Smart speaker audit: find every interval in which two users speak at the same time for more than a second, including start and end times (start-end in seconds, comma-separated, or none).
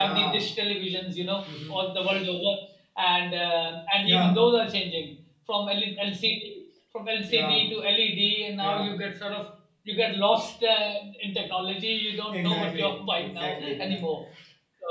12.3-14.0